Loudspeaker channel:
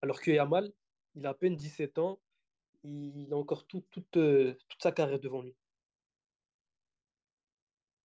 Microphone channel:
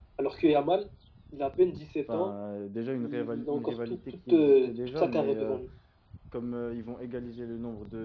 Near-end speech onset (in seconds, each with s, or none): 2.1 s